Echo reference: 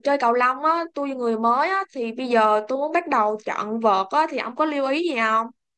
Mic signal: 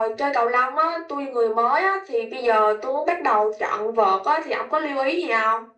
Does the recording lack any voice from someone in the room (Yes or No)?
Yes